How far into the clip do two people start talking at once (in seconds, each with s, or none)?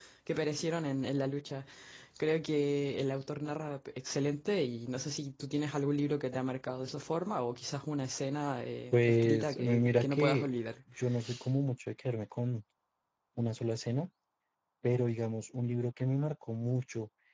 8.9 s